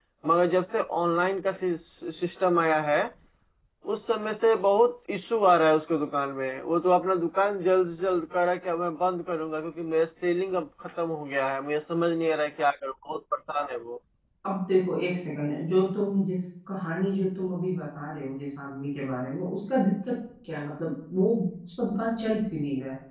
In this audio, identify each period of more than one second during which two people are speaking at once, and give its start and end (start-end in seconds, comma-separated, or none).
none